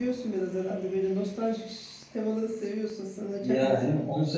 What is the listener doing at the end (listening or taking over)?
taking over